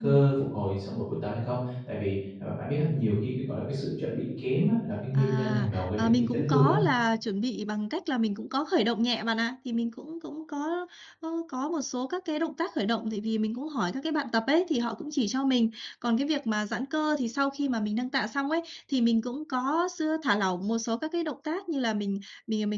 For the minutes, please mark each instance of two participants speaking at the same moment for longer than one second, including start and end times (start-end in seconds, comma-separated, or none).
5.1-6.7